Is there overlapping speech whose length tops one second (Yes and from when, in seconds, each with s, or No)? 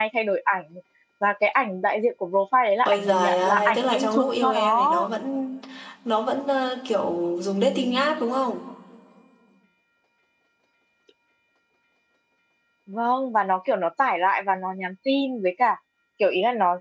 Yes, from 2.8 s